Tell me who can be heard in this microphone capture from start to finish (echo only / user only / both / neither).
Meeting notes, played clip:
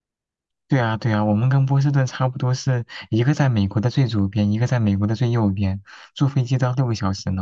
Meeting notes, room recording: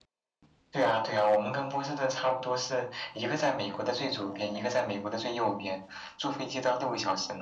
echo only